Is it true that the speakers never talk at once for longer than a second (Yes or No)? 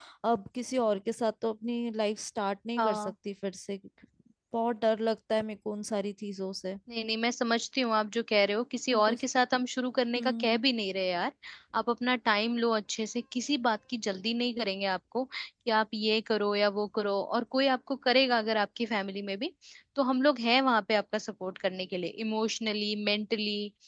Yes